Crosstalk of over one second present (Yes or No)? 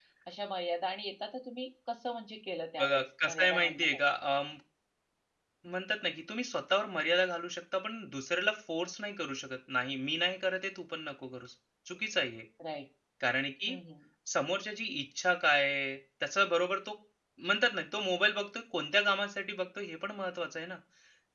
Yes